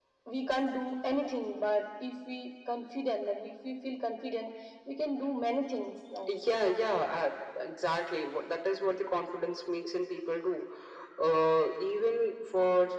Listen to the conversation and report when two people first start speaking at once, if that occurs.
none

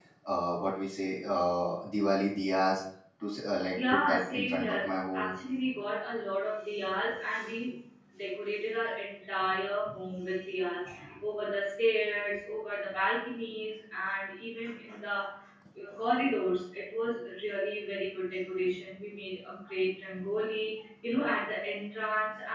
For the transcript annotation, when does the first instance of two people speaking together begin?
3.9 s

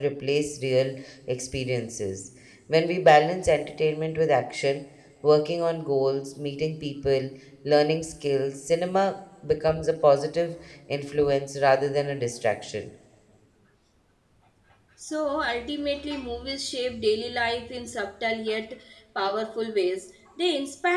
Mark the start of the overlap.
none

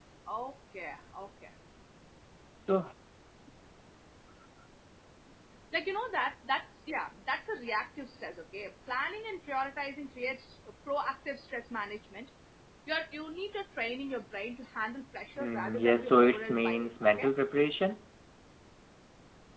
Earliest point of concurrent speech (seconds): 15.3 s

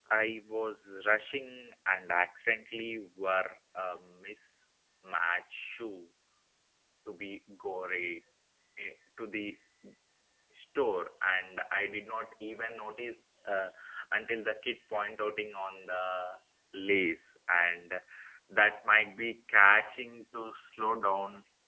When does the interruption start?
none

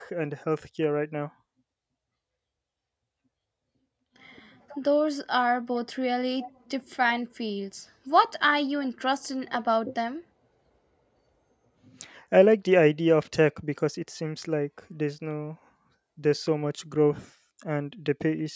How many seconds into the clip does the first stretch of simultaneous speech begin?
none

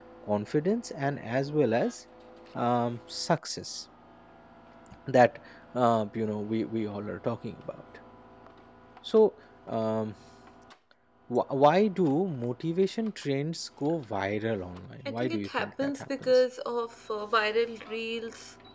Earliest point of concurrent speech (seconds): 15.0 s

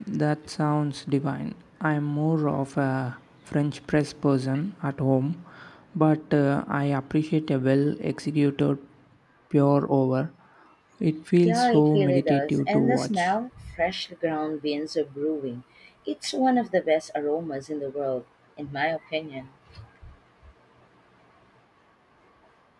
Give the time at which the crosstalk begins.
11.4 s

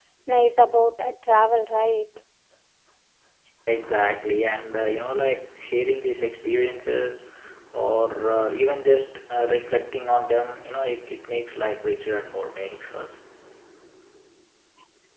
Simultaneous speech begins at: none

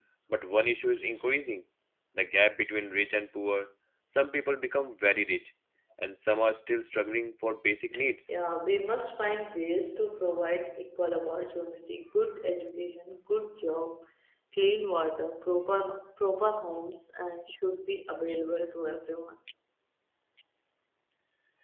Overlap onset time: none

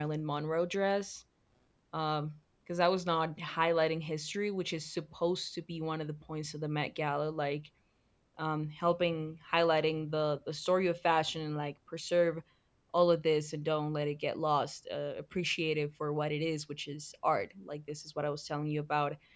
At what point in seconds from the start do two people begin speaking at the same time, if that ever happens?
none

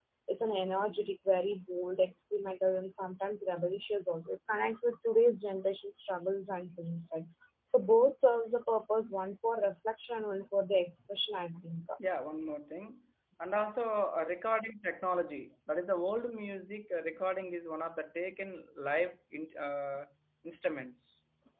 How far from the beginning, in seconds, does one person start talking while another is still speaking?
none

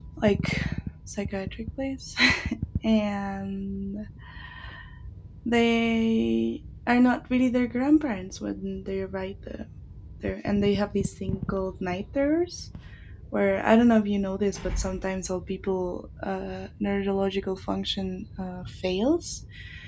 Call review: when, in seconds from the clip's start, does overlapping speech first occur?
none

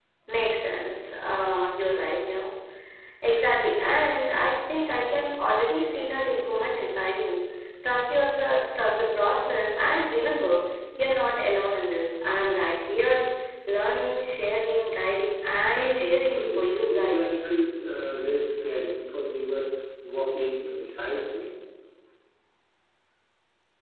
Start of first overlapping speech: 15.7 s

